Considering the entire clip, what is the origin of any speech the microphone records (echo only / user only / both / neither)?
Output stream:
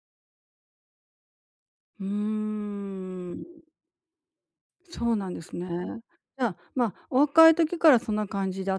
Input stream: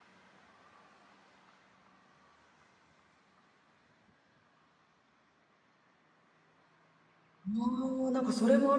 user only